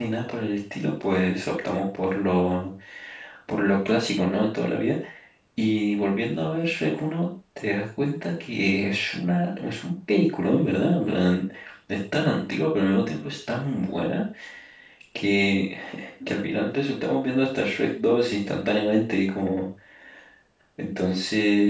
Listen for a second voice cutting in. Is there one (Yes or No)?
No